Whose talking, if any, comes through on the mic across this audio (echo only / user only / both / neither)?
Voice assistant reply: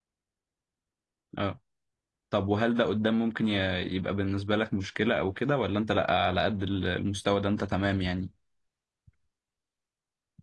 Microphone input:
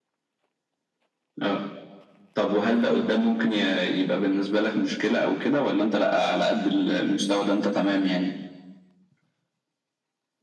echo only